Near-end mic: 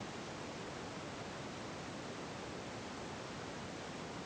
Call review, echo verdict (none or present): none